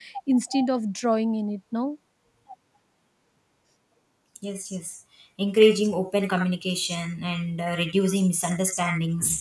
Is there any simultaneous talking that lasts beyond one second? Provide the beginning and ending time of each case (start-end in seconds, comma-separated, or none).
none